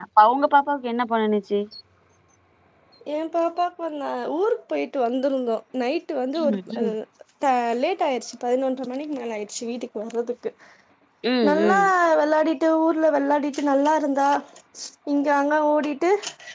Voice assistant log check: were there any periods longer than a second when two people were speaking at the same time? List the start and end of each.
none

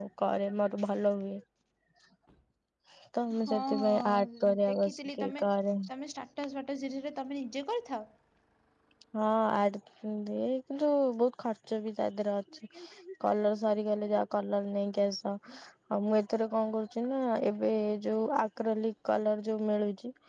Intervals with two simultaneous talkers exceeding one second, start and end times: 3.5-5.4

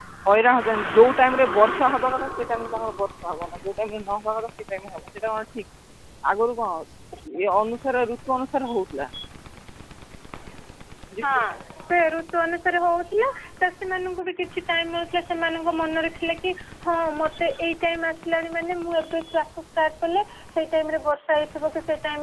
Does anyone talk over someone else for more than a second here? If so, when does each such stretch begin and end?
none

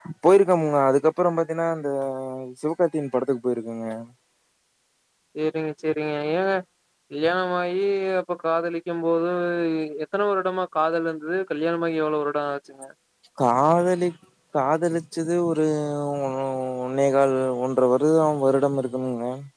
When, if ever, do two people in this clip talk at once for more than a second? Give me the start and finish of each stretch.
none

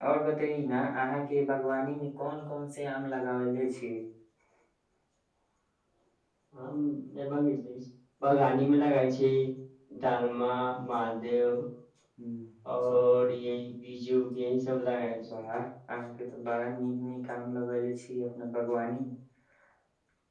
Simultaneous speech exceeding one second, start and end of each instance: none

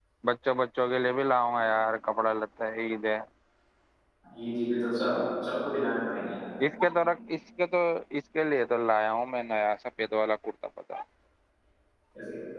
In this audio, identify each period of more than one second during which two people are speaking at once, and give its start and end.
none

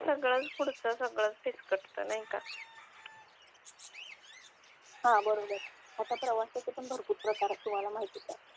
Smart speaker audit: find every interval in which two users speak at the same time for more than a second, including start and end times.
none

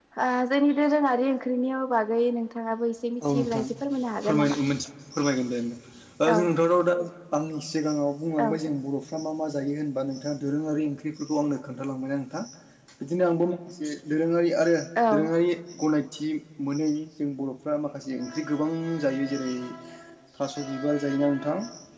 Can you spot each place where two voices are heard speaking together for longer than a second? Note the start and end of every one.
none

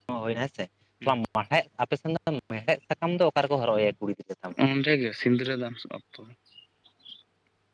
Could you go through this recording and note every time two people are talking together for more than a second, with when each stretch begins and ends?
none

